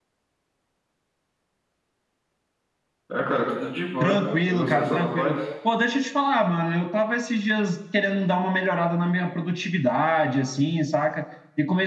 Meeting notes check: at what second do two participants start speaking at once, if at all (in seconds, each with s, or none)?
4.0 s